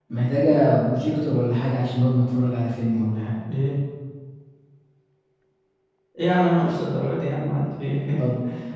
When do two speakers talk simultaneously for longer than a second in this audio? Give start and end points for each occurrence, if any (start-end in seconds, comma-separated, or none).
none